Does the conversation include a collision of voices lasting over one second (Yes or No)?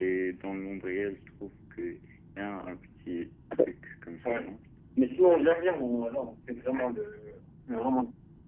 No